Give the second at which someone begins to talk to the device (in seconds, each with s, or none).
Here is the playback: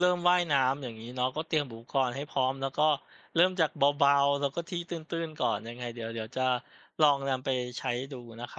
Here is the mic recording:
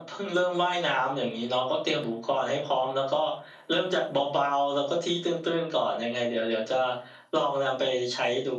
none